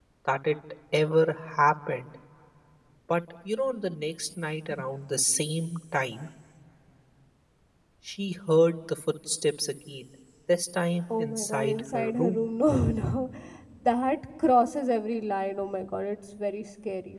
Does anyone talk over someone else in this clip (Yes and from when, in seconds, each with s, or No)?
Yes, from 11.2 s